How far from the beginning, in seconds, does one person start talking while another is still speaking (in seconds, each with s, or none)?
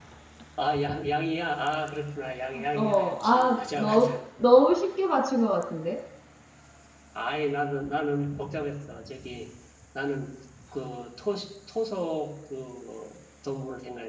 2.5 s